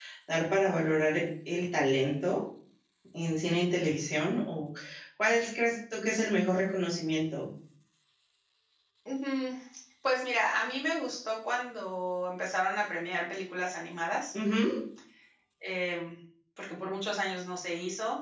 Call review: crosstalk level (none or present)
none